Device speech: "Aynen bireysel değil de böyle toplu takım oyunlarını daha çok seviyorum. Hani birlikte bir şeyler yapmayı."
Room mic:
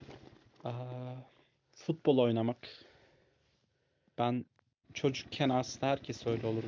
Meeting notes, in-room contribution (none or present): present